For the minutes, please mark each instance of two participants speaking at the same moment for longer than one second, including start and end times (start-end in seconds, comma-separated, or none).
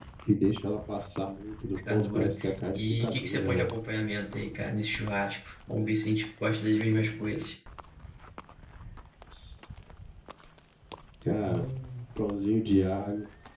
1.9-3.7